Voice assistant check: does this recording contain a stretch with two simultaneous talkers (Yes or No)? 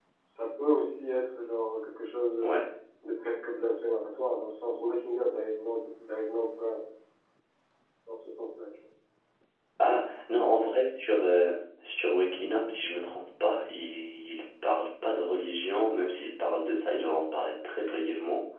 No